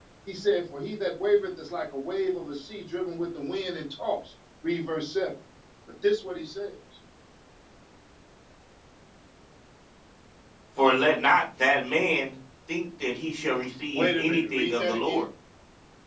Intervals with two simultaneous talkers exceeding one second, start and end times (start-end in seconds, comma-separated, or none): 13.9-15.2